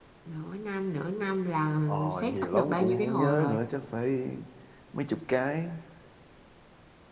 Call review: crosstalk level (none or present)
present